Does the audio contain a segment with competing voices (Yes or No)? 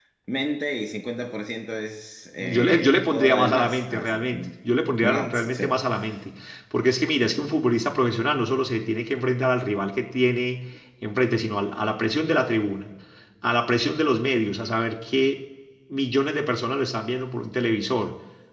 Yes